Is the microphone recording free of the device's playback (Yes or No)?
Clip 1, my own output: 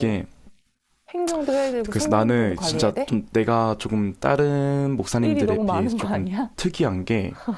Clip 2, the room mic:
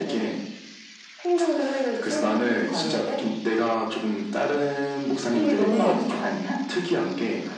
No